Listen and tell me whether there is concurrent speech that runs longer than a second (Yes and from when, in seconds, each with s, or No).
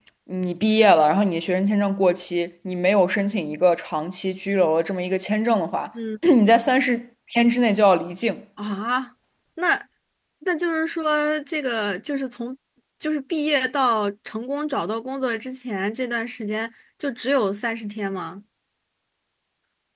No